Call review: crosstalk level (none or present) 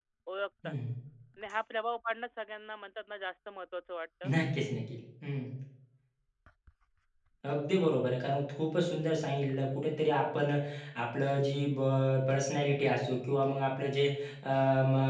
none